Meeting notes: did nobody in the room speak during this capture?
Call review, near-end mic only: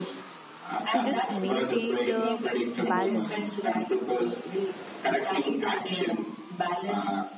No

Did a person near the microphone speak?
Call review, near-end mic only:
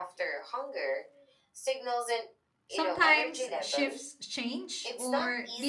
Yes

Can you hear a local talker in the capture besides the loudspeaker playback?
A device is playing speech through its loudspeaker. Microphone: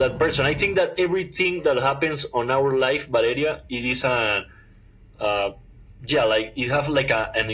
No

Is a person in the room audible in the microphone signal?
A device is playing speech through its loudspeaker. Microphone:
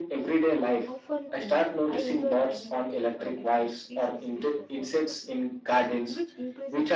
Yes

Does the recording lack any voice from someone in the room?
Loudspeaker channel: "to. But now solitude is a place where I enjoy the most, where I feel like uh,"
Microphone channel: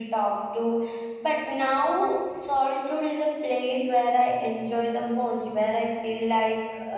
Yes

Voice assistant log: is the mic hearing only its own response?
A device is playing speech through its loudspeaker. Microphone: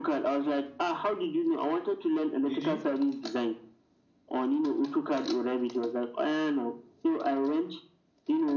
No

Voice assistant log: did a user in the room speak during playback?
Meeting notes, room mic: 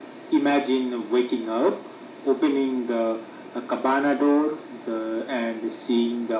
No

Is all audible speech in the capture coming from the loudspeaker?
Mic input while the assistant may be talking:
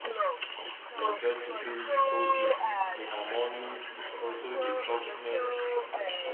No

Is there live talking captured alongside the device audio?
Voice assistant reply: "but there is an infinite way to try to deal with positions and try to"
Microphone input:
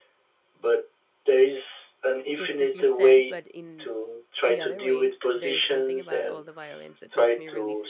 Yes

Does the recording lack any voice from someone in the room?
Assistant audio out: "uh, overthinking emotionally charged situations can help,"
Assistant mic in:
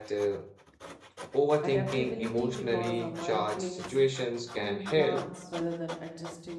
No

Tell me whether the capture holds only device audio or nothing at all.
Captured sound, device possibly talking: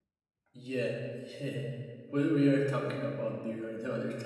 No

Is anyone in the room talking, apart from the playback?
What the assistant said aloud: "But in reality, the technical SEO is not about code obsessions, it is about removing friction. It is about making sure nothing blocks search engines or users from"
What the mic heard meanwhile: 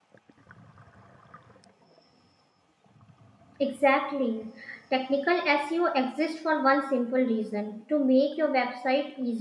Yes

